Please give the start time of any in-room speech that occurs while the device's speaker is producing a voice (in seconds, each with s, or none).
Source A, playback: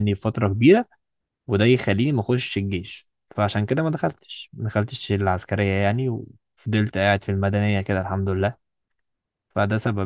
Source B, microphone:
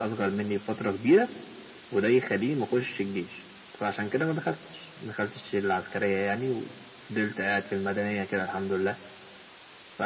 none